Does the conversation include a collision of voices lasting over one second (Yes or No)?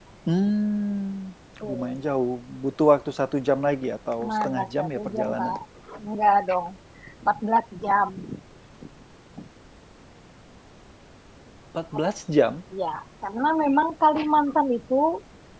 Yes